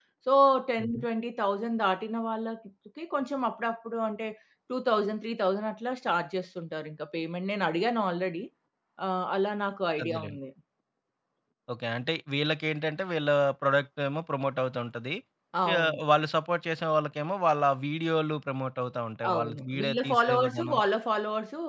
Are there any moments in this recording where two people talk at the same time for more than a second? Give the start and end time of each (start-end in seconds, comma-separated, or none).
19.3-20.8